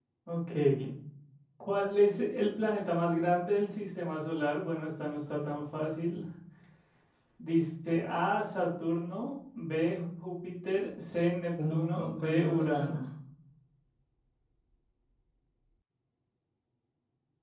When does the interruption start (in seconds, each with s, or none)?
11.6 s